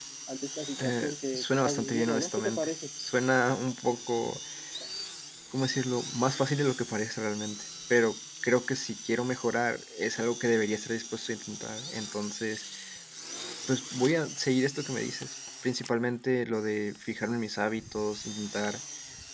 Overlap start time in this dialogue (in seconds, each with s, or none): 0.8 s